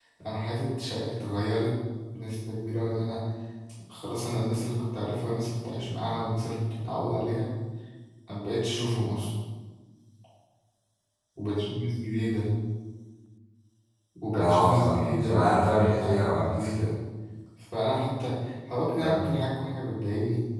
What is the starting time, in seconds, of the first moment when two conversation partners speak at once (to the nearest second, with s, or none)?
14 s